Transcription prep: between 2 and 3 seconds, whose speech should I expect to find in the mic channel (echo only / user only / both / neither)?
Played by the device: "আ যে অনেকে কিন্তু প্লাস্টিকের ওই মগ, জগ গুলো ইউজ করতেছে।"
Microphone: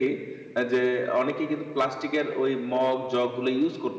echo only